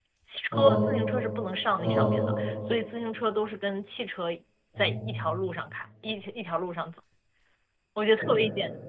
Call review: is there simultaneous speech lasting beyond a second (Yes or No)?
No